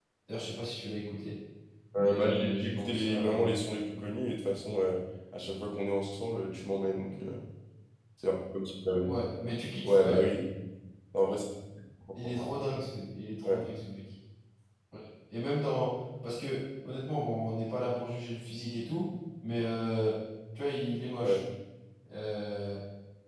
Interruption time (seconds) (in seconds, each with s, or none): 2.0 s